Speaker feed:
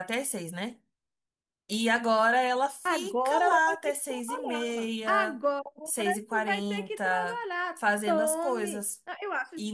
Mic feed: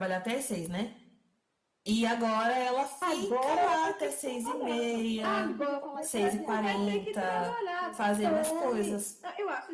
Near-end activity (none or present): present